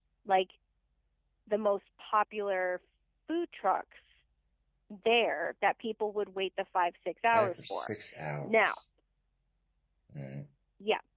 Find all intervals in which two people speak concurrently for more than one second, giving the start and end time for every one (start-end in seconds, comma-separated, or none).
none